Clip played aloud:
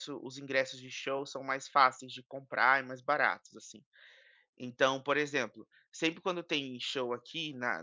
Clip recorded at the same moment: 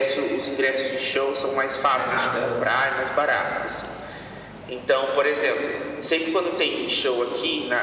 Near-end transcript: não é nada

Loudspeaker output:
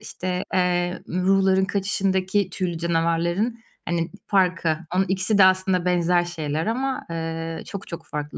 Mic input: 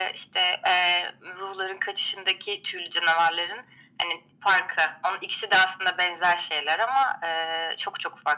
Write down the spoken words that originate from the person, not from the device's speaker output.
none

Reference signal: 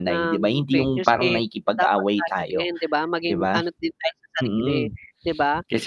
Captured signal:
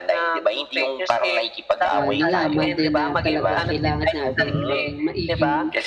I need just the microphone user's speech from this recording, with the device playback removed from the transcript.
ah, nalaman din na talagang kailangan natin yung maging maiging,

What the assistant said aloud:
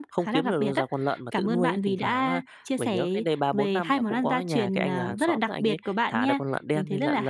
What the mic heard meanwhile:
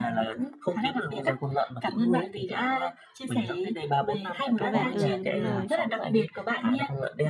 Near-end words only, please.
Có vẻ ừ, đúng rồi.

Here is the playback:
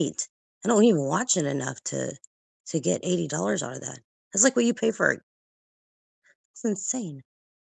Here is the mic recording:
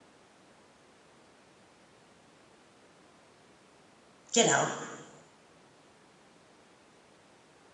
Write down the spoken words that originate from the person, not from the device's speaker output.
Get out.

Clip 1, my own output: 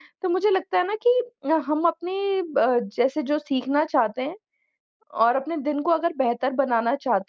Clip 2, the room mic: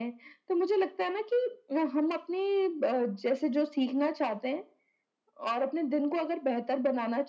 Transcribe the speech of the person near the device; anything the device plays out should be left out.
none

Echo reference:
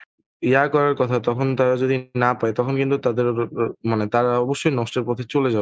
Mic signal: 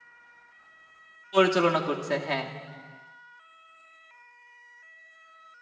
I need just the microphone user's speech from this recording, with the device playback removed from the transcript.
পরিচালনা করছে, হ্যাঁ।

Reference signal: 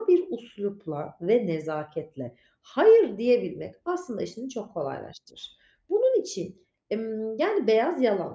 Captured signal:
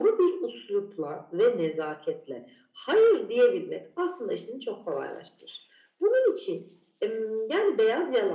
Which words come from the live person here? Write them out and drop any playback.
none

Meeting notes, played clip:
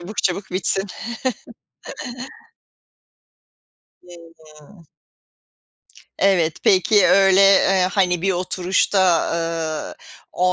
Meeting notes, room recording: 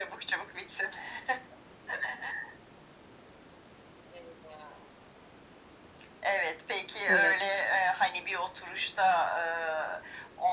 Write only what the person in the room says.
Evet.

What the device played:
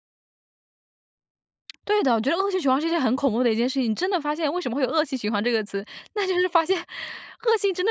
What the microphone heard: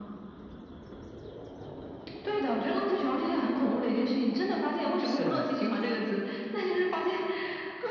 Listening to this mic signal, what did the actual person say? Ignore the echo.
是啊。

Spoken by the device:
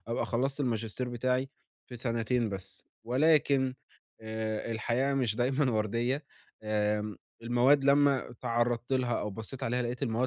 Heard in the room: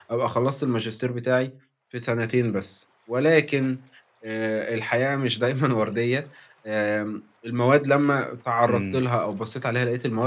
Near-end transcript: إمم.

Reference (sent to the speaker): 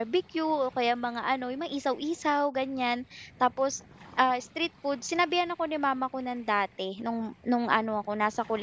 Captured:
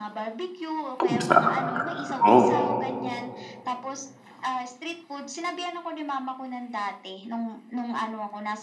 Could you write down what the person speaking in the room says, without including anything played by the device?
Hmm, sarap nga. Oo.

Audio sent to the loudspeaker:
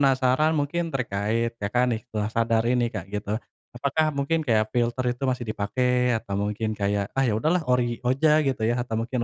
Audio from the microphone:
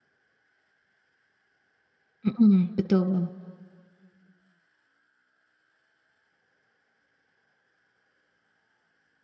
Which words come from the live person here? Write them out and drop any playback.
Heeh, betul.

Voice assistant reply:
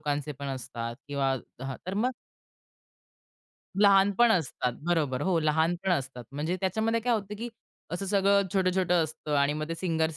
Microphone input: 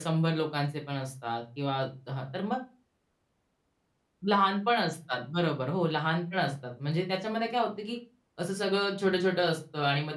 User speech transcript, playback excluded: none

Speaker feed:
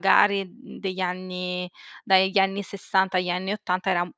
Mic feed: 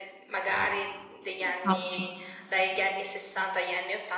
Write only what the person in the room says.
Incauti.

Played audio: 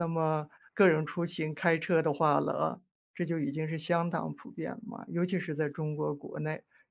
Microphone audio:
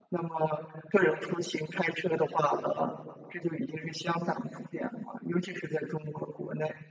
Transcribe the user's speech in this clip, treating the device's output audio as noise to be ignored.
none

